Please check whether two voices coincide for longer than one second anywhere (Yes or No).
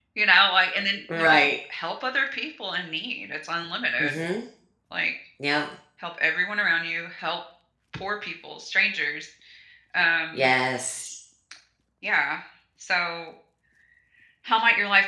No